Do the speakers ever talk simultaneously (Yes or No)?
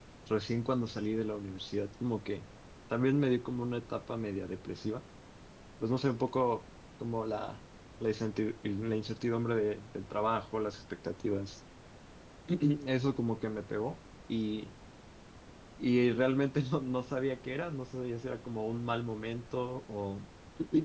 No